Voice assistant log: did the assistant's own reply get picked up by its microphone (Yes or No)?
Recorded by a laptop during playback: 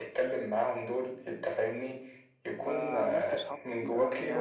Yes